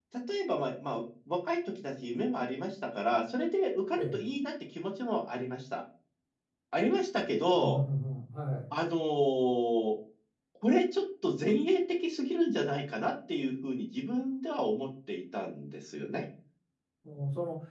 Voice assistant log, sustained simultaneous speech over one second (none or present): none